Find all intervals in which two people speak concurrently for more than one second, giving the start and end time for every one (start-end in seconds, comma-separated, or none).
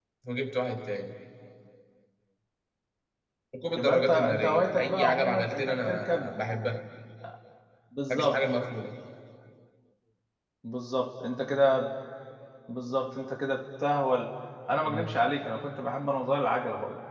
3.8-6.3